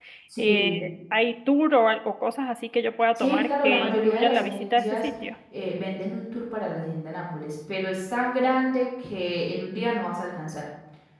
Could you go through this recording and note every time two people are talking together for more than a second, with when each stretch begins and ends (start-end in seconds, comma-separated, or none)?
3.1-5.1